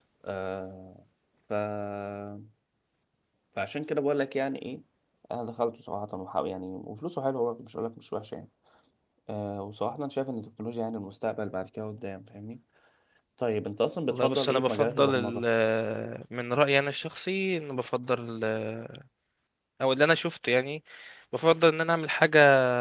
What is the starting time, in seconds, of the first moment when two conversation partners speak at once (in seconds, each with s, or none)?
14.1 s